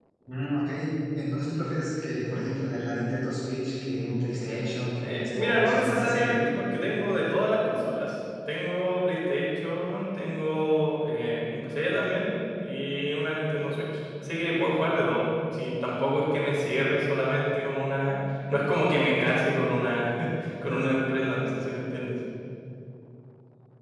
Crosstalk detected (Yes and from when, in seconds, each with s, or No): Yes, from 5.0 s